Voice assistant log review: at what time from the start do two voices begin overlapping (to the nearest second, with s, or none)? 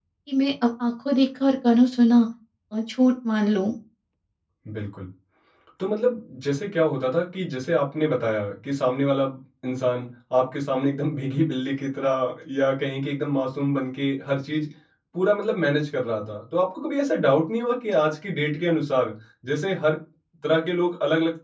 none